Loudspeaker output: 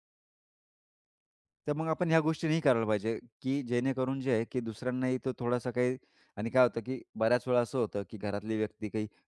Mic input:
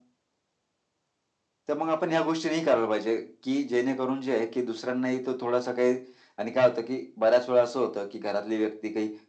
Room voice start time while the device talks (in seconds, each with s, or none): none